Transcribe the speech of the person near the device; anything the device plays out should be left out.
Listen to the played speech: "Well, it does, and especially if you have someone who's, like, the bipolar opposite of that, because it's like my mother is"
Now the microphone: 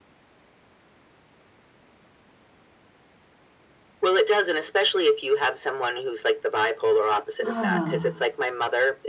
Ah,

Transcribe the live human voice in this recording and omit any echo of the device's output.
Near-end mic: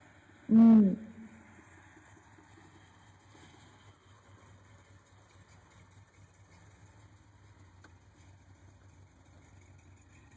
嗯嗯

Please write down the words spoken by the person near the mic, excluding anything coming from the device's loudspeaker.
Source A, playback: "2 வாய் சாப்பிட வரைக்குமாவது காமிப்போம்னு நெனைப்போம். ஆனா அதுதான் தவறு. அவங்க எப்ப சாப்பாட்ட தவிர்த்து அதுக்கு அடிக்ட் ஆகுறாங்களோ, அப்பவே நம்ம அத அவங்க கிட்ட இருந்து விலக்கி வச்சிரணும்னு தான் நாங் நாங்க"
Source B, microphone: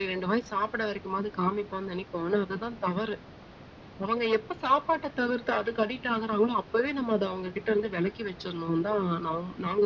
none

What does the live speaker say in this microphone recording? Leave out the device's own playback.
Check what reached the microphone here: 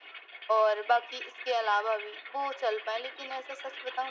none

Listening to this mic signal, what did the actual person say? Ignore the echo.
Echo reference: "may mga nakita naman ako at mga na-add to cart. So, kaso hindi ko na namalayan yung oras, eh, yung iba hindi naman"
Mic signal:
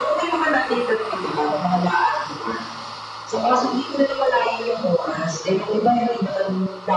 none

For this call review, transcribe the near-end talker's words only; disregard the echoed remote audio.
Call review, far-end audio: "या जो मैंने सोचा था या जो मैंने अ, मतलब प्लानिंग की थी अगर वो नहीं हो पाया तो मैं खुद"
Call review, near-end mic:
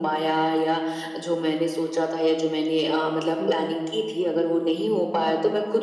हुँ, हुँ।

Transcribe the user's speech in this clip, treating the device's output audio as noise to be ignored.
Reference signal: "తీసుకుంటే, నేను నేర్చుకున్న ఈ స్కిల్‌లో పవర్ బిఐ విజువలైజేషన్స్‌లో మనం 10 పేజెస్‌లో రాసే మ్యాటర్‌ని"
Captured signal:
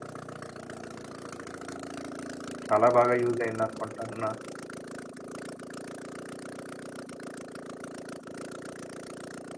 చాలా బాగా యూజ్ అయిందనుకుంటున్నా.

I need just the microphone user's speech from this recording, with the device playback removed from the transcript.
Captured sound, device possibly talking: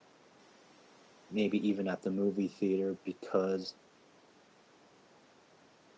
maybe even at the movie theater, because I

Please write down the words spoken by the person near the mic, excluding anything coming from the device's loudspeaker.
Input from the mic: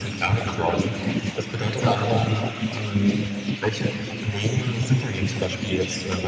none

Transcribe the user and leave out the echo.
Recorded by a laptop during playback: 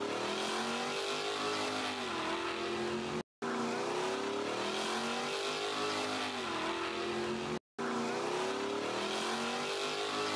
none

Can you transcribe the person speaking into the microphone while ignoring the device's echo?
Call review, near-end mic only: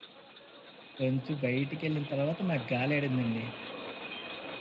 కొంచెం బయటికెళ్ళిన తర్వాత నాకు గాలాడిందండి.

